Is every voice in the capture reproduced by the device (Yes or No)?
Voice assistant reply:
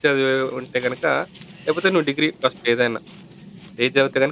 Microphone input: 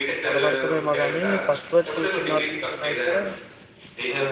No